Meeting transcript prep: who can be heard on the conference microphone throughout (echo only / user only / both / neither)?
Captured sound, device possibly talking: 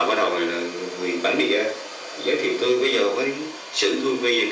echo only